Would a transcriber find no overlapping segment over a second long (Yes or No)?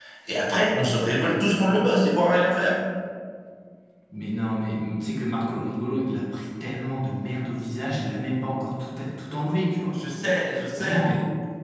Yes